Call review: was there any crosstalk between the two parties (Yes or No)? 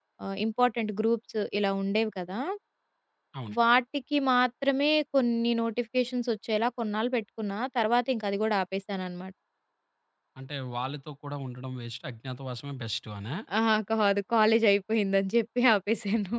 No